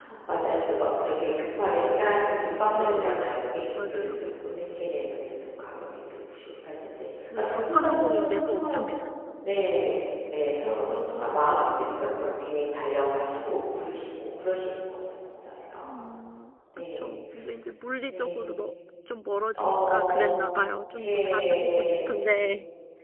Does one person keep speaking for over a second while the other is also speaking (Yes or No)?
Yes